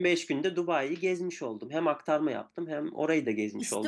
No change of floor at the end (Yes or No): No